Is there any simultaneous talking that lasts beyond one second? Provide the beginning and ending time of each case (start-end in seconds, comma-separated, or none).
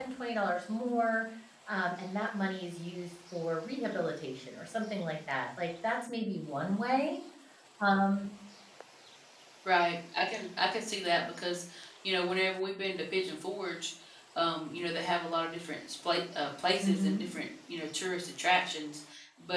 none